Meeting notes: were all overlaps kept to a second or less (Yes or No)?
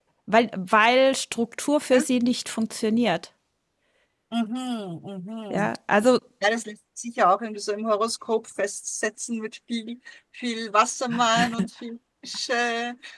Yes